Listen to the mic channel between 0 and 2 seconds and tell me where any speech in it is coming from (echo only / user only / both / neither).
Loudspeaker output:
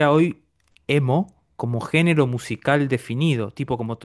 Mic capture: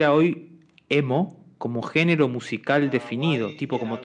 echo only